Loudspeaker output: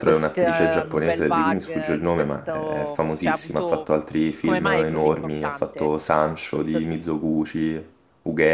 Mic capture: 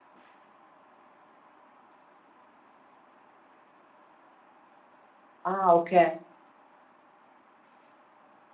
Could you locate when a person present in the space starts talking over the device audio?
5.4 s

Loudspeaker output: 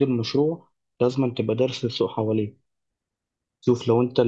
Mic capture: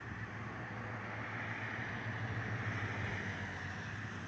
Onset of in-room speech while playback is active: none

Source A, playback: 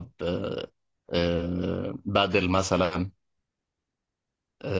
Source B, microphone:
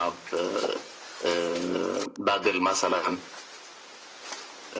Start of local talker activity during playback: none

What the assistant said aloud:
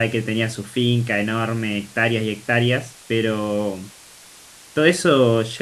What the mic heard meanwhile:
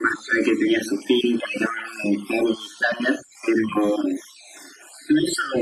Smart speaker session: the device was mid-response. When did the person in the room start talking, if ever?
none

